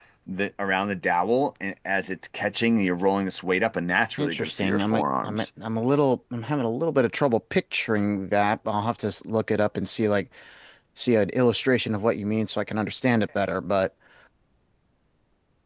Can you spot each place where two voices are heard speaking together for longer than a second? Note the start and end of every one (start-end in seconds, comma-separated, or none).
4.2-5.4